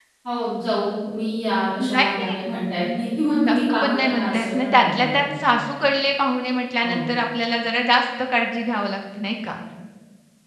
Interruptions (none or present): present